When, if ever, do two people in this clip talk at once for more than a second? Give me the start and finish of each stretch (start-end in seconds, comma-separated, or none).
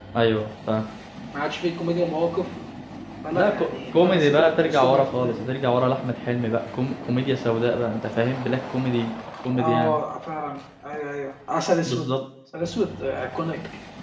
3.3-5.4